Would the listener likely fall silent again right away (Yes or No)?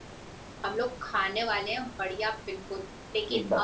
Yes